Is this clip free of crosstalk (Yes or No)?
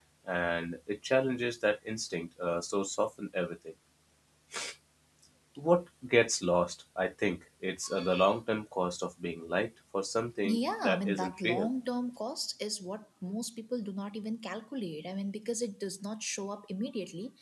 No